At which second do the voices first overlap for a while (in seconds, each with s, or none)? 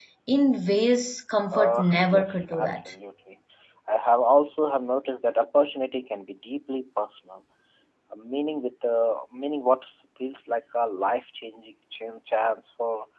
1.5 s